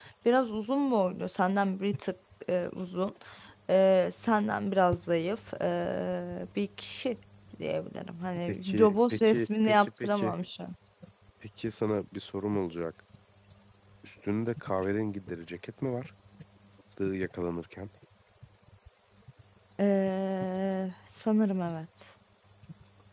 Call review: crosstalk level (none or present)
present